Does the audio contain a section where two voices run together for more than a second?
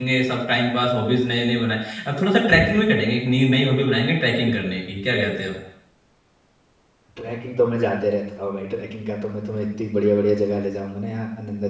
No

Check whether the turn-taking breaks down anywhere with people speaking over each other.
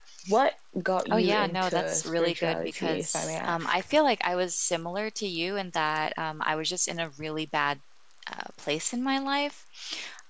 Yes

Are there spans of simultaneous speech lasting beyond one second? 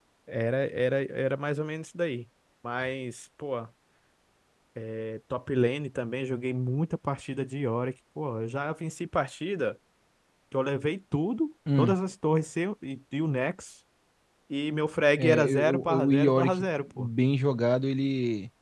Yes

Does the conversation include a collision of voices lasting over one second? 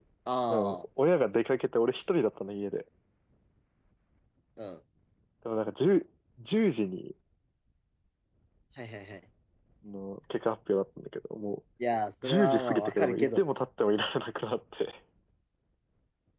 Yes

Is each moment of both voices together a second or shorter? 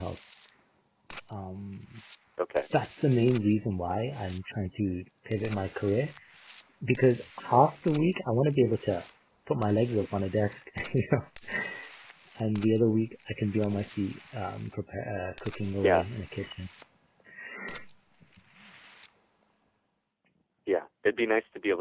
Yes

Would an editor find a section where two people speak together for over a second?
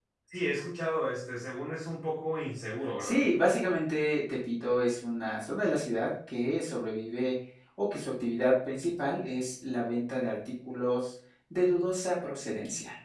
No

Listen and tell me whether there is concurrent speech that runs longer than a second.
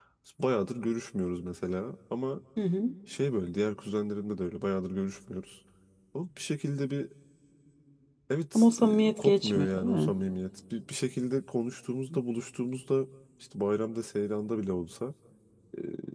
Yes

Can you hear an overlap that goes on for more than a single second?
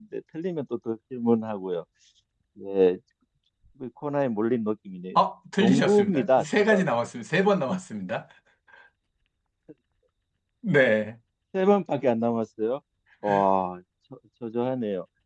Yes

